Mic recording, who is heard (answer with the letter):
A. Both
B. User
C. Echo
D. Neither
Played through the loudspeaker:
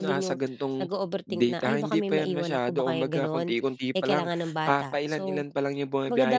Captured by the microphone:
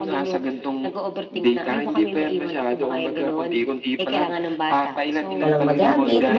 A